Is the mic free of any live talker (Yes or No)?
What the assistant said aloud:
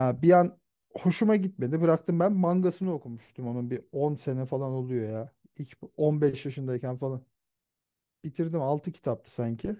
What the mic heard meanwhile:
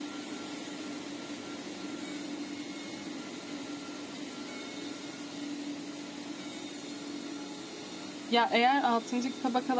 No